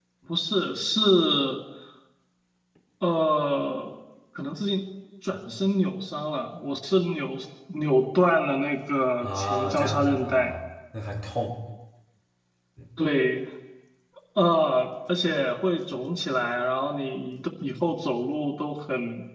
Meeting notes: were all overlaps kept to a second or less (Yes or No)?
No